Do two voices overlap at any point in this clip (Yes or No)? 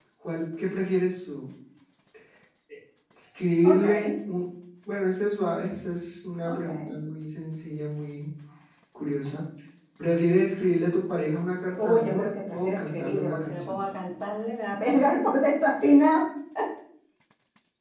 Yes